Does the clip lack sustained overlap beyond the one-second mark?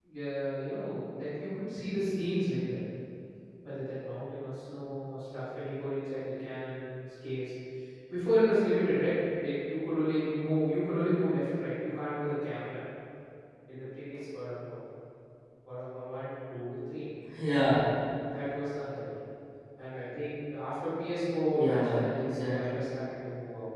No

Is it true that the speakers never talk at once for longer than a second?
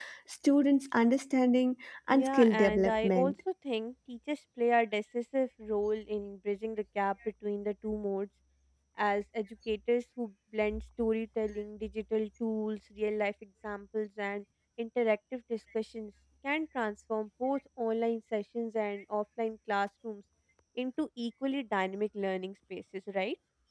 No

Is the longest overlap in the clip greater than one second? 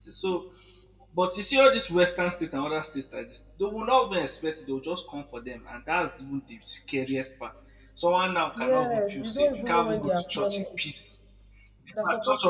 Yes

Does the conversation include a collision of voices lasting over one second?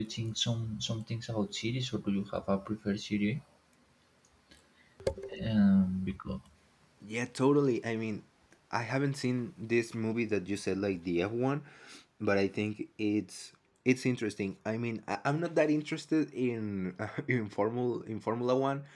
No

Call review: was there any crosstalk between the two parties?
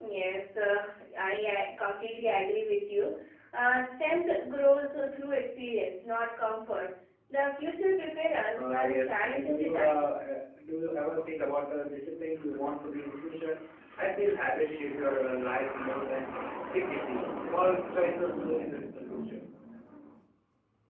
Yes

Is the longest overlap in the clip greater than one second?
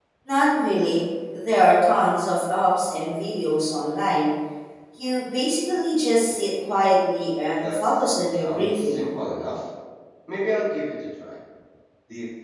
Yes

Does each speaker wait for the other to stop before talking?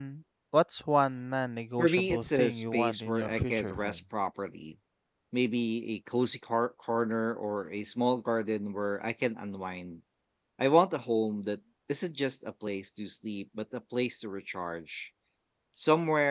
No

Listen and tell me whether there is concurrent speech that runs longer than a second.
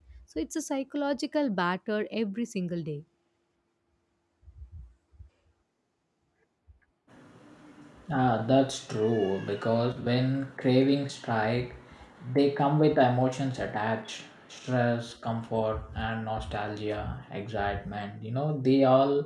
No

